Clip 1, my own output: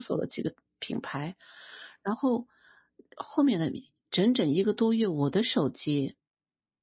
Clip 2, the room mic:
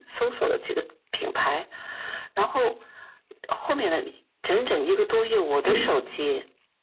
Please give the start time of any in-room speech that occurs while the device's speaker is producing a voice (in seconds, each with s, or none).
5.6 s